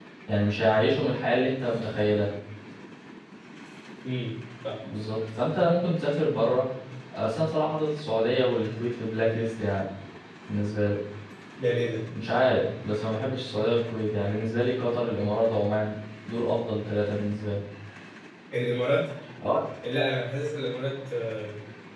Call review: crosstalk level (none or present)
none